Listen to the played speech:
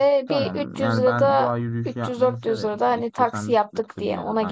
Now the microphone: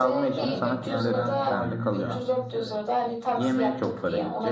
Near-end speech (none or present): present